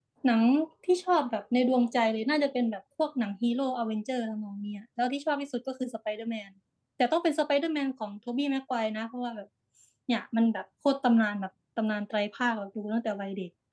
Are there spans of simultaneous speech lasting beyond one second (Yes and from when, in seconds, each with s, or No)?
No